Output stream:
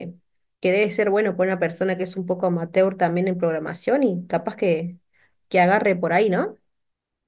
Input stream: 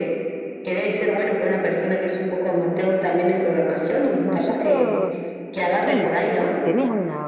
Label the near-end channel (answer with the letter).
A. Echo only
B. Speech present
B